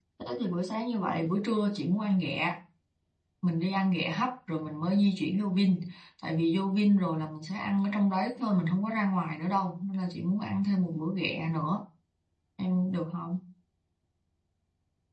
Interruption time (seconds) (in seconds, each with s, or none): none